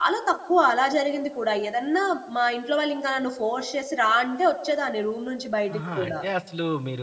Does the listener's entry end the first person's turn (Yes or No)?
Yes